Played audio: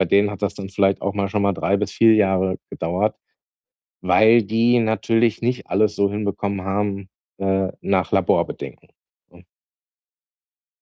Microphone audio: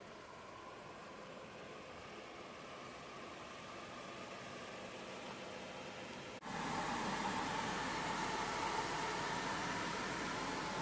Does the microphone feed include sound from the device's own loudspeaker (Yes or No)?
No